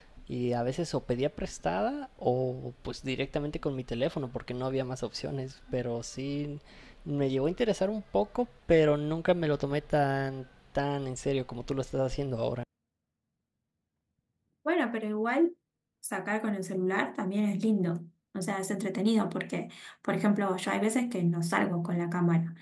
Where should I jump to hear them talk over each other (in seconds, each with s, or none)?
none